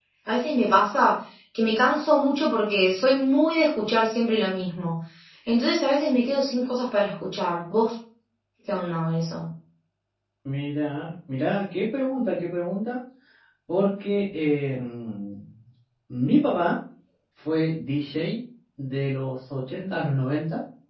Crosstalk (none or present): none